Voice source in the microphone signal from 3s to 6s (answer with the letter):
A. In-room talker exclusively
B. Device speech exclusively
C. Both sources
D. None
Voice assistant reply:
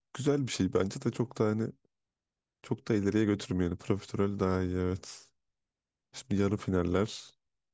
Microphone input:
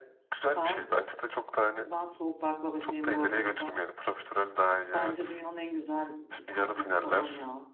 C